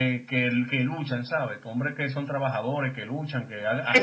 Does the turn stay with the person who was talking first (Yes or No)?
No